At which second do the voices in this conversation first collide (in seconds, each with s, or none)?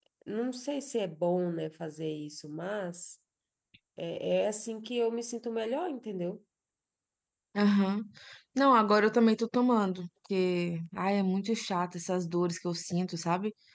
none